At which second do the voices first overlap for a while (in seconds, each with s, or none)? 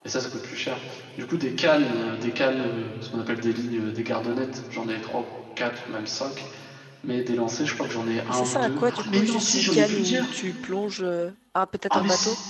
8.3 s